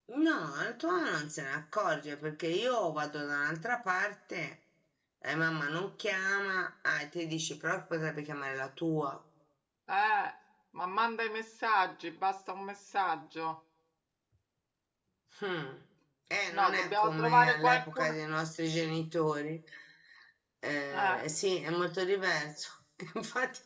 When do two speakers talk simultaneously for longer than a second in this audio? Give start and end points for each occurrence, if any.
16.5-18.1

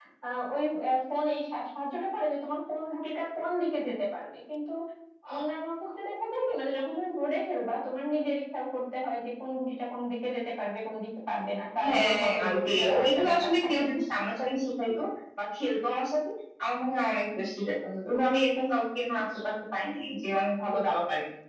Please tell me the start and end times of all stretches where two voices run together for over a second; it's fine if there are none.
11.8-13.7

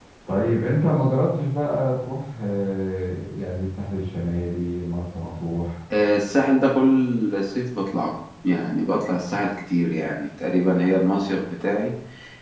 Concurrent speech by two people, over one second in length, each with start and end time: none

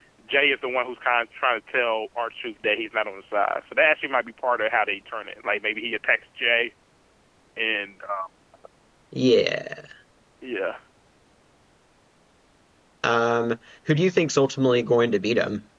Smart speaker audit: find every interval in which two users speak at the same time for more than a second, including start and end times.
none

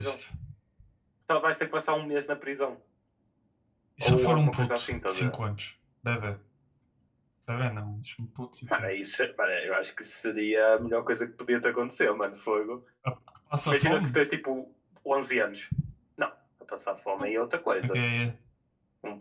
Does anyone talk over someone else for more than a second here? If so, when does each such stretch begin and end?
4.0-5.3

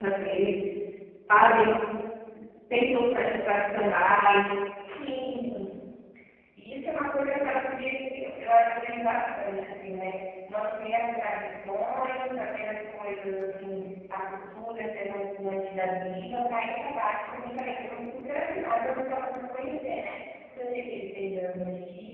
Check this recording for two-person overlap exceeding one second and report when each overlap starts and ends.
none

